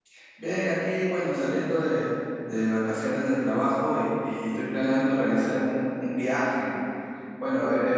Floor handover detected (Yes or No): No